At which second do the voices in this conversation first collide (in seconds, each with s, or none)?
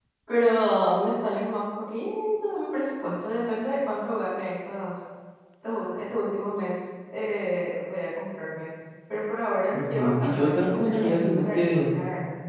9.7 s